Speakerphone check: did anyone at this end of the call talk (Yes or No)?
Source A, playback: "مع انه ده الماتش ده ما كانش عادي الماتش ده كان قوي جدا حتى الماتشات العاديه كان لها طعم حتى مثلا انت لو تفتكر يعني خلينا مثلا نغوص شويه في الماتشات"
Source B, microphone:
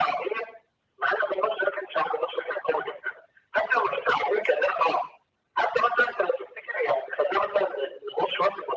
No